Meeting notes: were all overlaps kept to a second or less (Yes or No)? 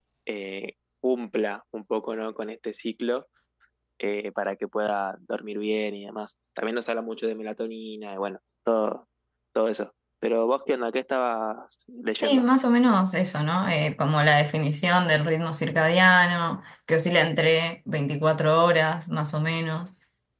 Yes